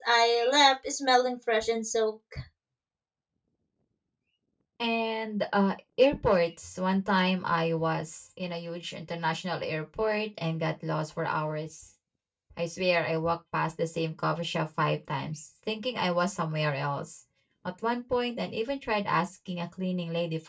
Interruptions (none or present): none